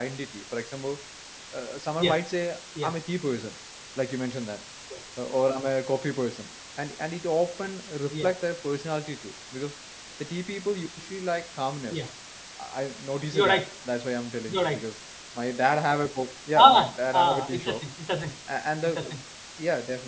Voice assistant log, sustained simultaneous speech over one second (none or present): present